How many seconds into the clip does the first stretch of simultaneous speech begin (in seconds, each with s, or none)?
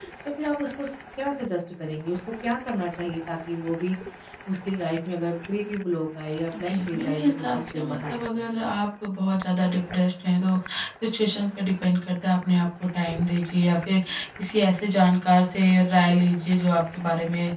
6.6 s